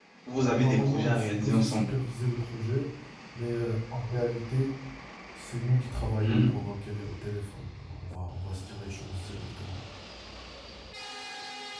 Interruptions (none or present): present